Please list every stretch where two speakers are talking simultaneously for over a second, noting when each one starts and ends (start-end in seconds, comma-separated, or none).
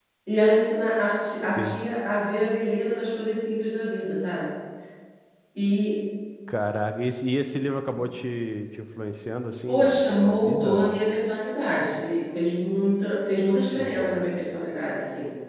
9.7-11.0